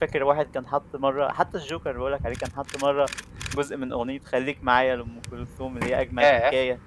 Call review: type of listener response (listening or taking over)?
listening